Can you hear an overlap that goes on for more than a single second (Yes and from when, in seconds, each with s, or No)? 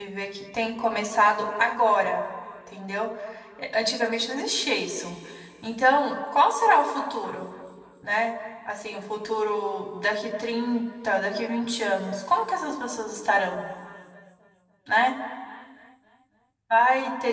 No